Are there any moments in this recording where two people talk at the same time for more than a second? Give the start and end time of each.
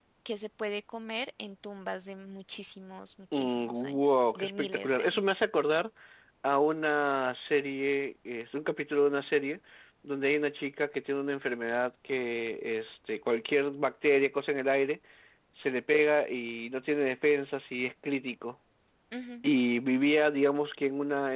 3.3-5.2

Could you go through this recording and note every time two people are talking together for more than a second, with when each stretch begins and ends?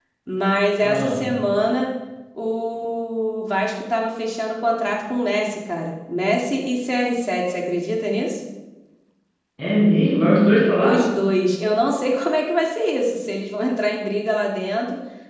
none

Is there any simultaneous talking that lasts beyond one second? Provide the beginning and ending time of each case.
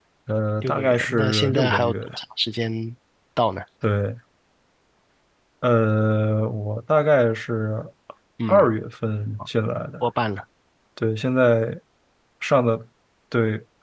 0.6-2.1

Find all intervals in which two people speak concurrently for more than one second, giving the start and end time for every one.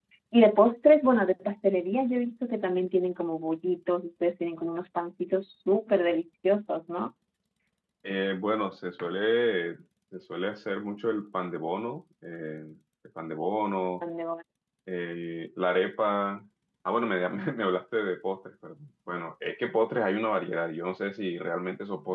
none

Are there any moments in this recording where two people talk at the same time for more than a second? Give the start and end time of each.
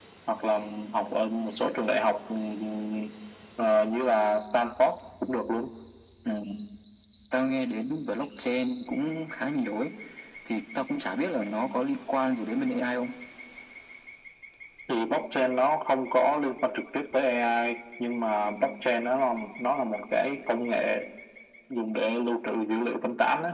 none

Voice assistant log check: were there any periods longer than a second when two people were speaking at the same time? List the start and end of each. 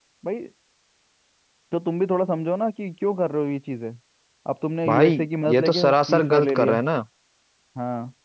4.9-6.8

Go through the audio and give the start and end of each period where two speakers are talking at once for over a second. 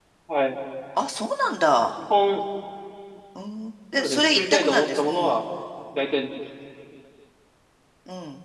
4.0-5.4

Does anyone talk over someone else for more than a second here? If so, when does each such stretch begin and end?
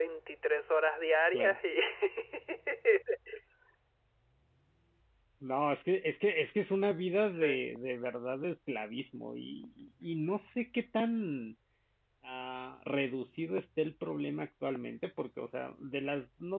none

